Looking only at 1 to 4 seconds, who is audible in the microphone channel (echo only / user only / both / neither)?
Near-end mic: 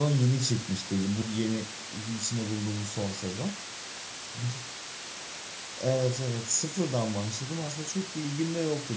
echo only